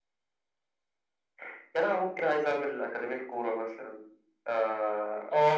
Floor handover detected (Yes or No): Yes